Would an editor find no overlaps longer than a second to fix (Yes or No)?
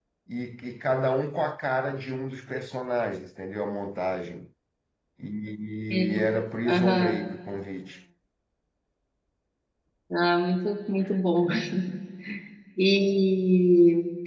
Yes